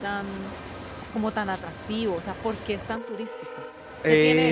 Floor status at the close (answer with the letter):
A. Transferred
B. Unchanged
A